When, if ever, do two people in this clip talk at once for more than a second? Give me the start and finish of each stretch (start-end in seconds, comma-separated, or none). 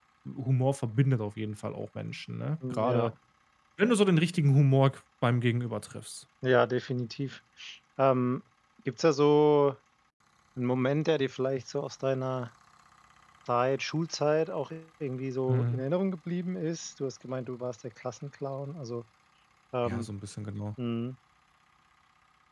none